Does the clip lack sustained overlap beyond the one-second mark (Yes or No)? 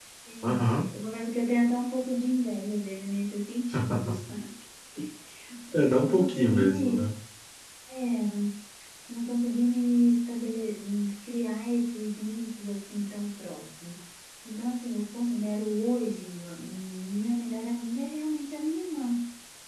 No